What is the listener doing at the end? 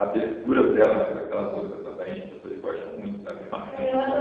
taking over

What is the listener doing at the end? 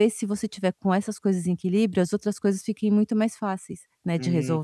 taking over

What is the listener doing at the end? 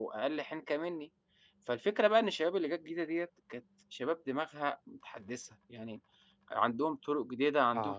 listening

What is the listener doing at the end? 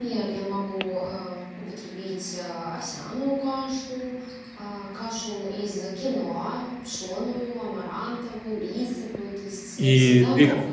taking over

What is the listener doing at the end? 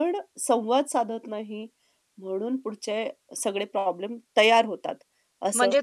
taking over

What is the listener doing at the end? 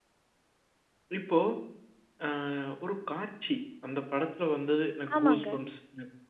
listening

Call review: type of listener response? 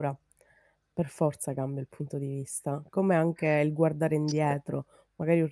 listening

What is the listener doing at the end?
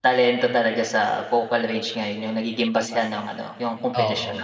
listening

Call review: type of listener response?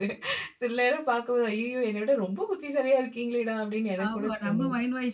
taking over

